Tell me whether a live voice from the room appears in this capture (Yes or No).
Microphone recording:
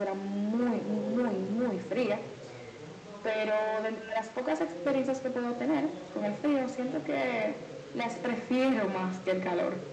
Yes